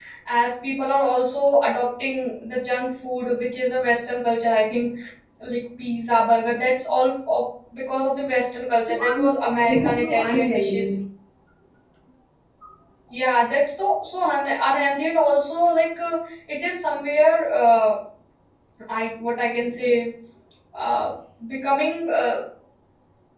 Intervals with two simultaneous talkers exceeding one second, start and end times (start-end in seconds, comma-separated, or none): 8.9-10.9